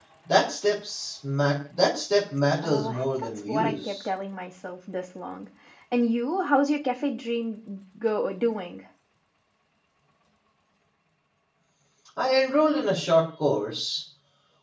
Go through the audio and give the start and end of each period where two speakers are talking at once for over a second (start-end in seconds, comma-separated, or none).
2.6-4.0